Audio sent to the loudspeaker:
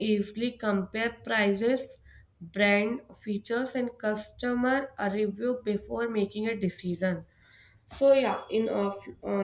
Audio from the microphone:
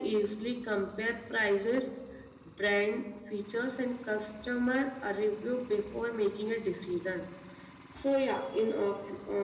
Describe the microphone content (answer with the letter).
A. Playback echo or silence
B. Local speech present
A